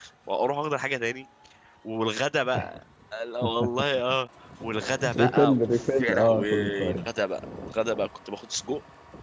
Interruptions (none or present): present